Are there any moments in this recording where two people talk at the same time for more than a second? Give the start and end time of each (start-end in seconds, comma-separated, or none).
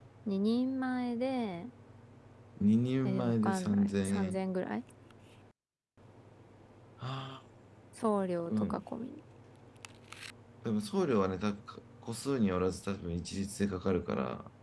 3.0-4.4